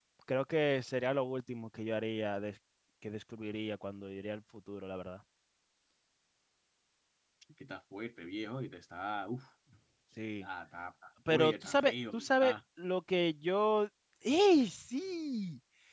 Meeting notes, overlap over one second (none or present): present